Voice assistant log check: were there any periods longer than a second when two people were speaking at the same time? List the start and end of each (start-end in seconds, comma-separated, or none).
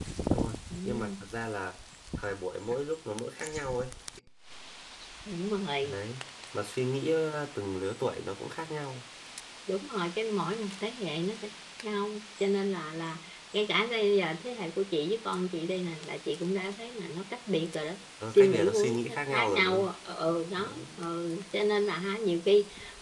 18.4-19.9